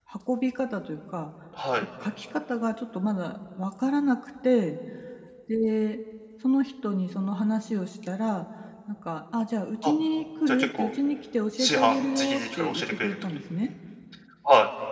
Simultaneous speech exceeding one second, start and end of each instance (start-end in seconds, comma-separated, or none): 11.6-13.2